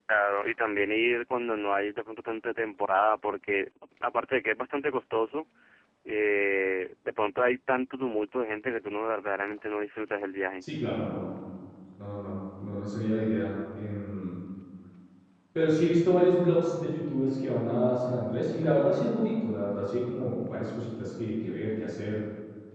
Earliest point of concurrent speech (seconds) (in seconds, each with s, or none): none